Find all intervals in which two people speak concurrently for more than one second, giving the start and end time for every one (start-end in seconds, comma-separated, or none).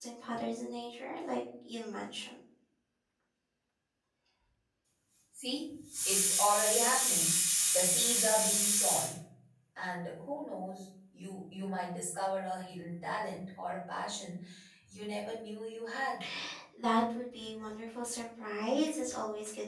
none